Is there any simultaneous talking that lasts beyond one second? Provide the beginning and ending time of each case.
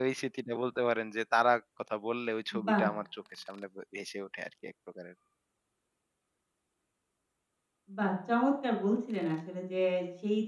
none

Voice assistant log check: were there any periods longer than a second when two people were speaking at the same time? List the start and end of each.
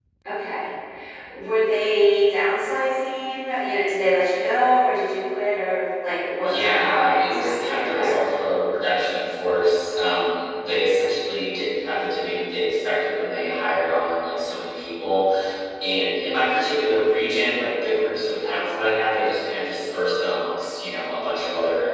6.4-8.2

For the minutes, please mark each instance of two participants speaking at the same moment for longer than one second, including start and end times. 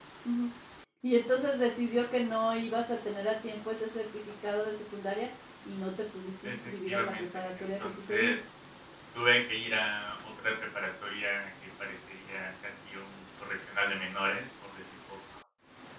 6.4-8.4

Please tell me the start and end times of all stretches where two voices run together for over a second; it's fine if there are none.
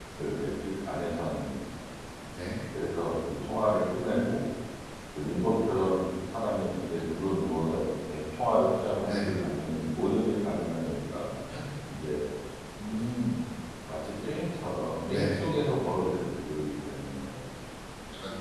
none

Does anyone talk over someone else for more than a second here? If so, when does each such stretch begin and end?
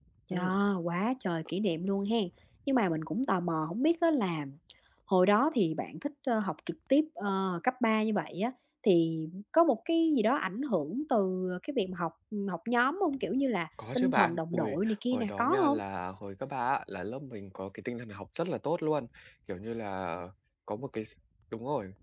13.9-15.8

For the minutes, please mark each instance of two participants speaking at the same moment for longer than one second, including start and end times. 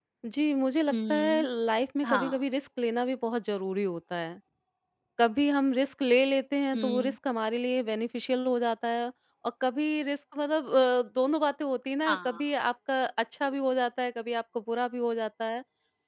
none

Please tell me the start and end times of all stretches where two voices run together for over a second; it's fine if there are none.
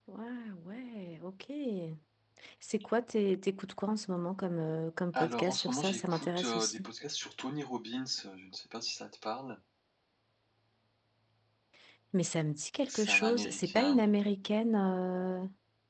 5.1-6.9, 12.9-14.1

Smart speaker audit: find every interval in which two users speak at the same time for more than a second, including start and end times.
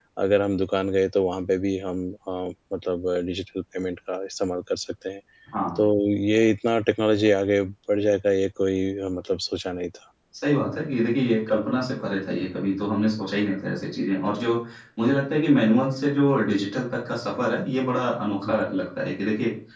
none

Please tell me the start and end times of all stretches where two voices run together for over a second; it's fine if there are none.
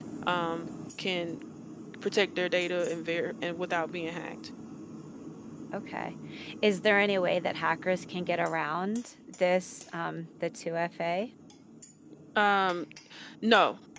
none

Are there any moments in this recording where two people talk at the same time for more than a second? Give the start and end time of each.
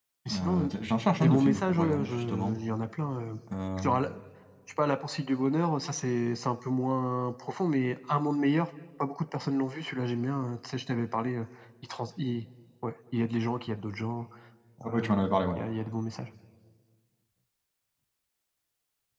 1.2-2.6

